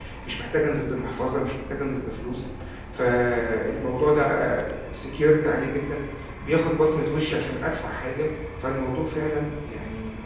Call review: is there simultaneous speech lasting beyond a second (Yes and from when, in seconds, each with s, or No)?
No